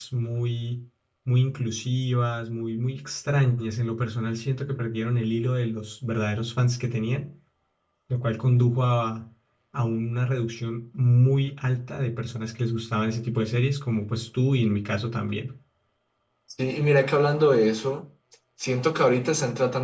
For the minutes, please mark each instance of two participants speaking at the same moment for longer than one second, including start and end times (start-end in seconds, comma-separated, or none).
none